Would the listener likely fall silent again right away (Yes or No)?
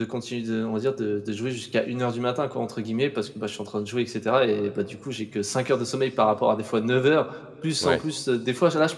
Yes